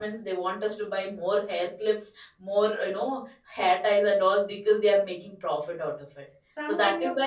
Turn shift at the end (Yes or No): Yes